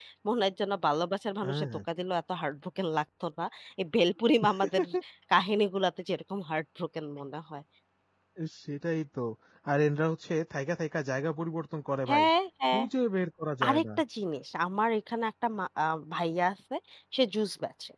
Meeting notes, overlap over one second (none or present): none